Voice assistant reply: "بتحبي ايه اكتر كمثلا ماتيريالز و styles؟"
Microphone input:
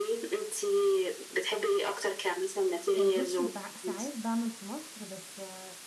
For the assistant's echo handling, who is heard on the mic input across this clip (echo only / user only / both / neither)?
both